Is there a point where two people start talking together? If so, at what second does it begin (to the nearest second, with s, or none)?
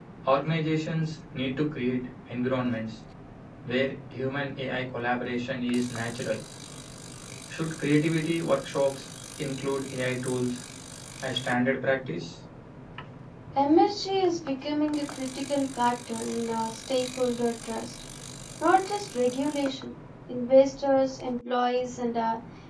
none